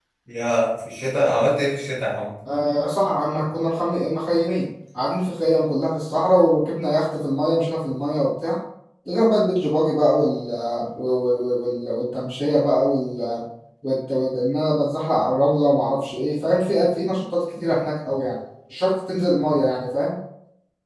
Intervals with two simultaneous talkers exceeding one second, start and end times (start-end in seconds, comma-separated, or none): none